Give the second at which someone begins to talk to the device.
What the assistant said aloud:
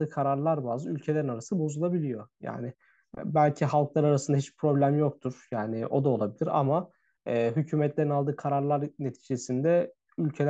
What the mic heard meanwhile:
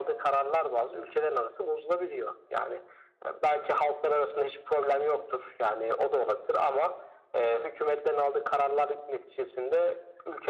none

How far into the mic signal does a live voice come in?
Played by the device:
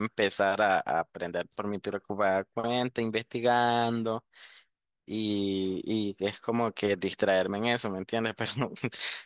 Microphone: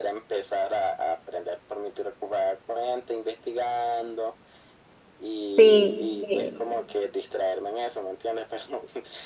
5.5 s

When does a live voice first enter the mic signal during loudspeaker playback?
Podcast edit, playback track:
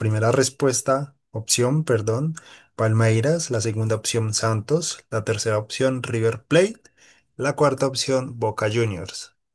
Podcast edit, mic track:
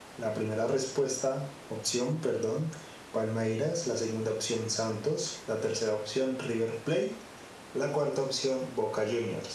none

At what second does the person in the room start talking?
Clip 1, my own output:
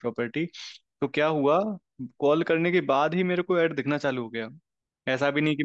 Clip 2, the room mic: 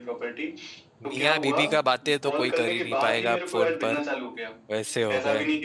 1.0 s

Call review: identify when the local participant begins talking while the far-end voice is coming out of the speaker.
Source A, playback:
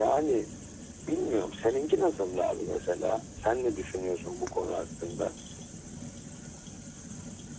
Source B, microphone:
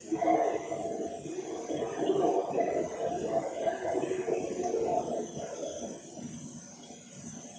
none

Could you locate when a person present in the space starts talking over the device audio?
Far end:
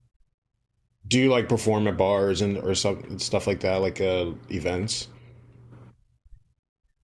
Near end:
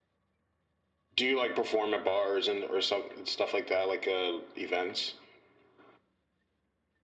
none

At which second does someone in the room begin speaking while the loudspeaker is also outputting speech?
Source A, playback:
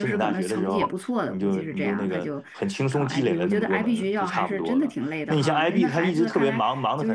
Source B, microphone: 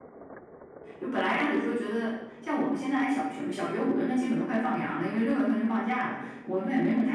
1.0 s

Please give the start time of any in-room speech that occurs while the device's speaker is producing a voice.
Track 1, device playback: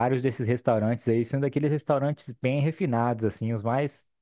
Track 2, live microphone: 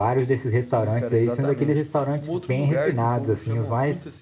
0.6 s

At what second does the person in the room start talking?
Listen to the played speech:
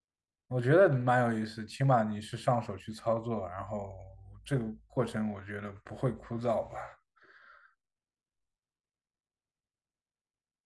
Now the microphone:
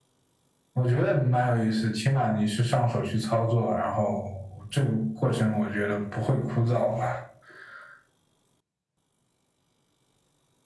none

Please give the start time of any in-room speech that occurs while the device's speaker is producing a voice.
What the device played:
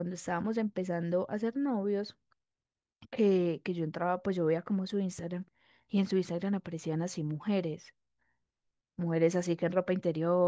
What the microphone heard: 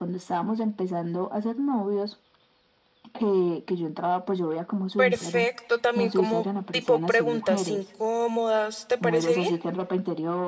5.0 s

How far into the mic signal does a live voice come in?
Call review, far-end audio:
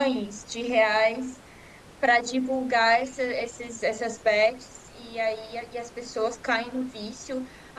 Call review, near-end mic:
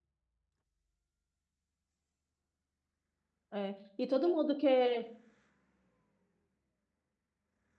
3.5 s

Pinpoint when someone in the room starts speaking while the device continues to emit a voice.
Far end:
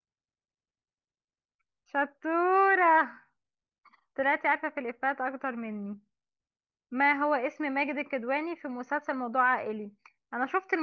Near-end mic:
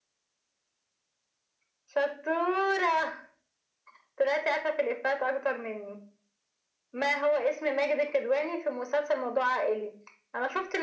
none

